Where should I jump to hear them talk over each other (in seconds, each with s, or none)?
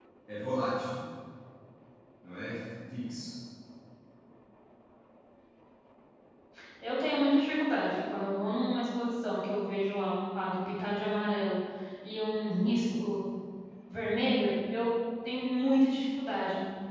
none